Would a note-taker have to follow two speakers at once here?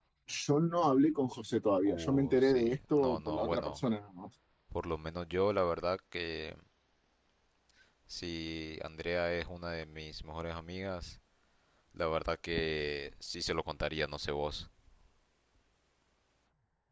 Yes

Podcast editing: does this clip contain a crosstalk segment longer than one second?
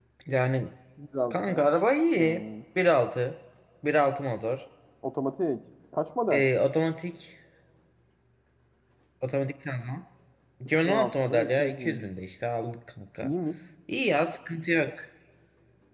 Yes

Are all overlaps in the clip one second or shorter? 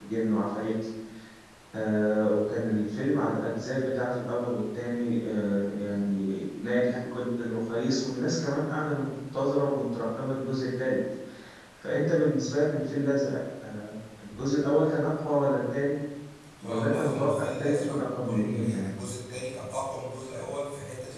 No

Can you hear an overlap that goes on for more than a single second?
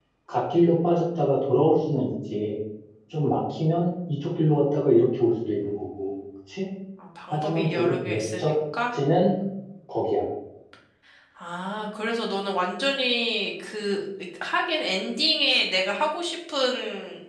Yes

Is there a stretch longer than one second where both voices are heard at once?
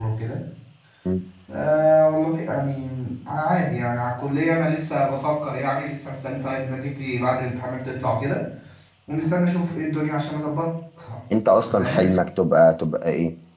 No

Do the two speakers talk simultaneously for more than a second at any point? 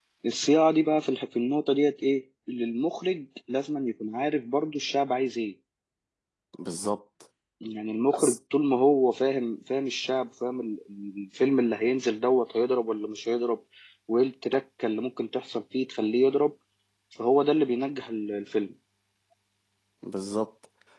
No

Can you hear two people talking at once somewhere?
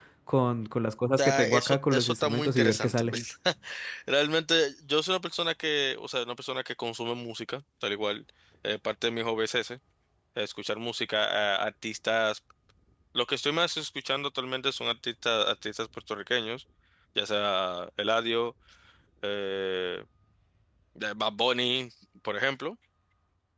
Yes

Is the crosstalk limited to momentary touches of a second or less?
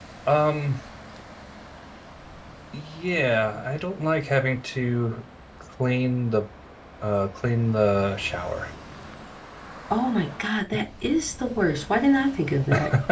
Yes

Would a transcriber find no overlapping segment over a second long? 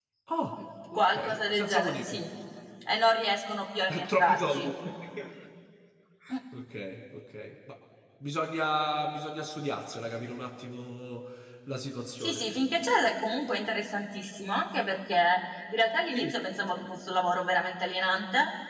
No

